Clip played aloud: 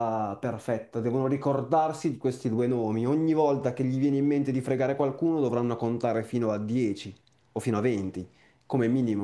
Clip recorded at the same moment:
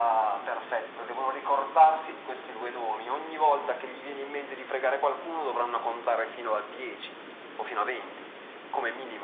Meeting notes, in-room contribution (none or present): none